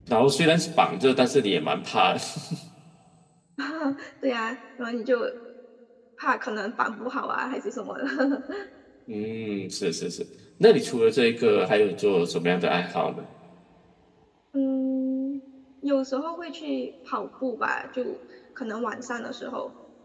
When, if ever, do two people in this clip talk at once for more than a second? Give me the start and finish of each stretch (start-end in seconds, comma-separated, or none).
none